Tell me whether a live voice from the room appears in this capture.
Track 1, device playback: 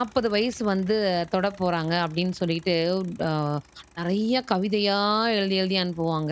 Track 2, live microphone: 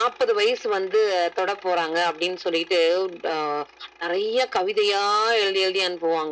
No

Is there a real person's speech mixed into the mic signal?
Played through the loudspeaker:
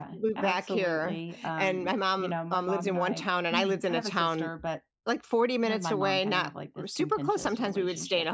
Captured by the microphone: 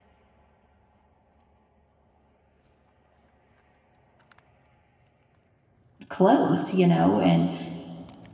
Yes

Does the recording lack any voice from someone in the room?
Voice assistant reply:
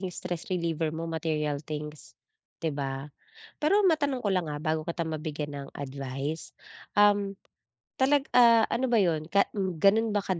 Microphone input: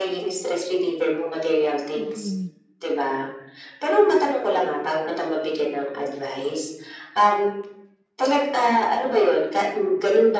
No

